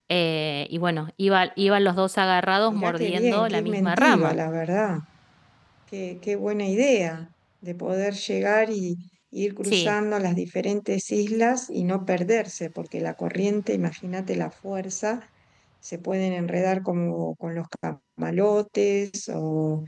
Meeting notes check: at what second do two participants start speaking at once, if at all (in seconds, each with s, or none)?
2.7 s